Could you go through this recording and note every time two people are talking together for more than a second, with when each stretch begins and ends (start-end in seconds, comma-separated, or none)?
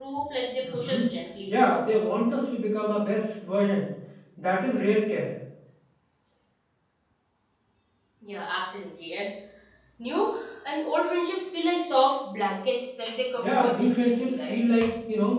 13.4-14.6